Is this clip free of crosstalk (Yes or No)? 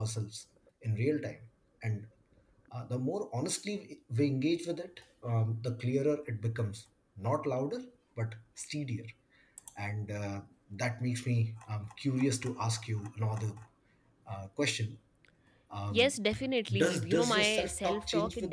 No